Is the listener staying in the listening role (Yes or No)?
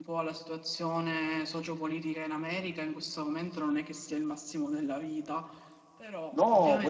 No